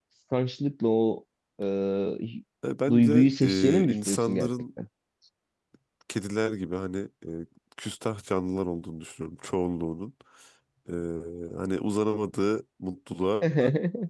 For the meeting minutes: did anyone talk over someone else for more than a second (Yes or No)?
Yes